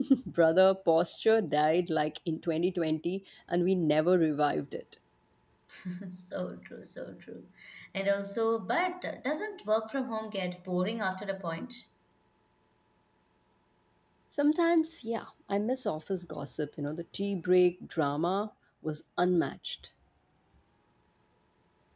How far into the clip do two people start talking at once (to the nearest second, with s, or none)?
none